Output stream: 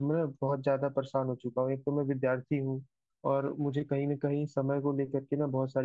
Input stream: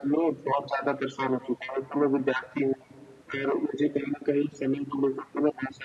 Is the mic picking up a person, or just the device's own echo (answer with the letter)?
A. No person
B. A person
A